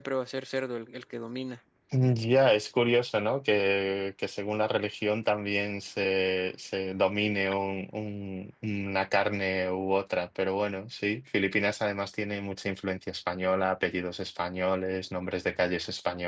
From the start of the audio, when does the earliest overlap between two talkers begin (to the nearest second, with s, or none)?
none